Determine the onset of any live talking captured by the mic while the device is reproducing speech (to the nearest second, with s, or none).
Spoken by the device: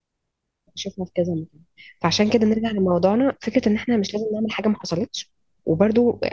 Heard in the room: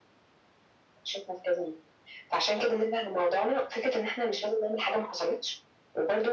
none